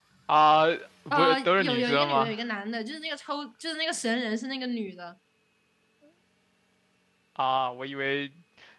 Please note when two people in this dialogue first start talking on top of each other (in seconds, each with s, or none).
1.1 s